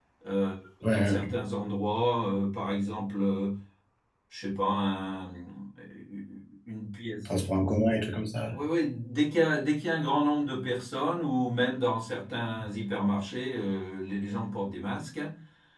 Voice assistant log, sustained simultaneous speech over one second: none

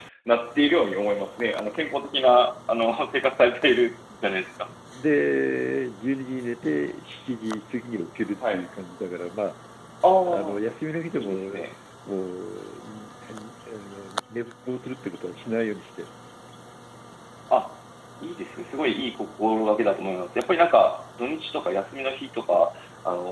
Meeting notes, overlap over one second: none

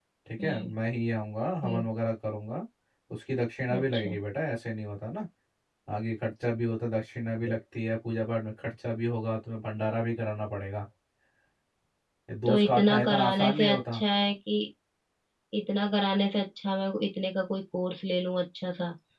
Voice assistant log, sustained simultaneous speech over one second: present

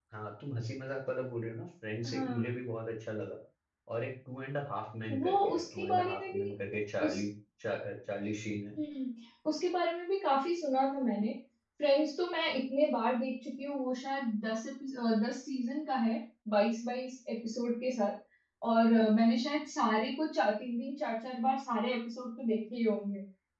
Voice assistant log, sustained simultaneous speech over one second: present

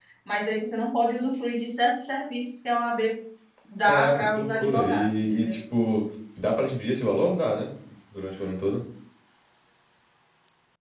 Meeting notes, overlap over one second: present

